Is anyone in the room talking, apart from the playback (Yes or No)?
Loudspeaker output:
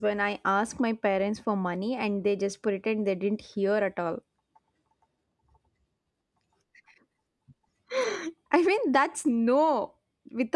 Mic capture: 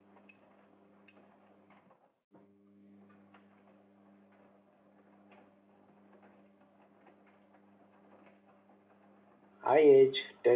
Yes